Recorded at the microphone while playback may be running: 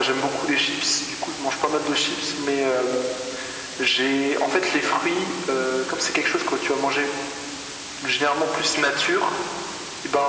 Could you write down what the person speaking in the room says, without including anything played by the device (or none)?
none